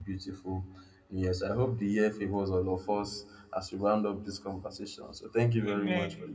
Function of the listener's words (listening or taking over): taking over